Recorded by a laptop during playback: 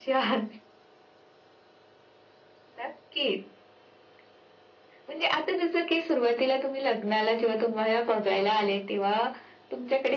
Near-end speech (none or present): none